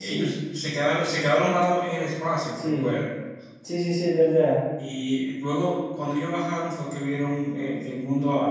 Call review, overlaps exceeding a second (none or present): none